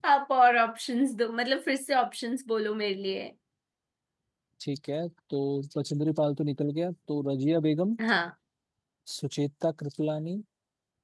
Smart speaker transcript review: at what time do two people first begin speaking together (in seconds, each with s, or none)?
none